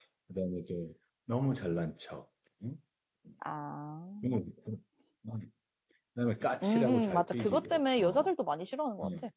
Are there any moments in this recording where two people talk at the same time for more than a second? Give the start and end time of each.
6.6-8.0

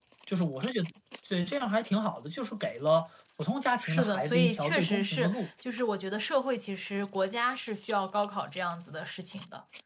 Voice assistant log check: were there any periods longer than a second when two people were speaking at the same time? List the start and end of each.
3.8-5.5

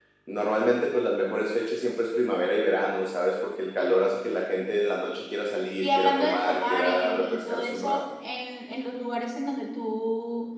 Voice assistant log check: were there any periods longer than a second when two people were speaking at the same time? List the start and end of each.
5.8-8.0

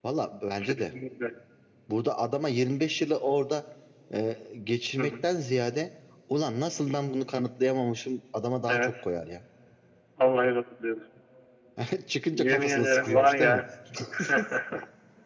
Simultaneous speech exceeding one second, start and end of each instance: 12.3-13.6

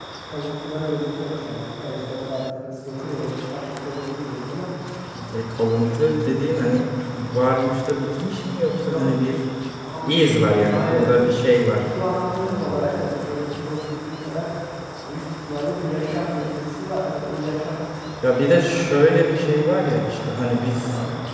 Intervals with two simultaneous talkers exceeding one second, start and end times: none

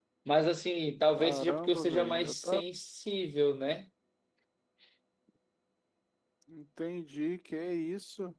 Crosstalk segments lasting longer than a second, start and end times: 1.1-2.6

